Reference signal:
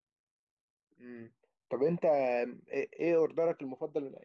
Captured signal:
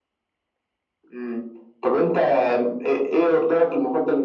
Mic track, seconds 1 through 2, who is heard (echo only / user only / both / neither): echo only